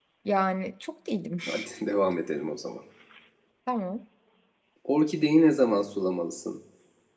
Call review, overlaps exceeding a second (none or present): none